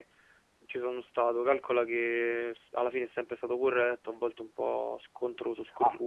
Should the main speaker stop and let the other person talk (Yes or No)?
Yes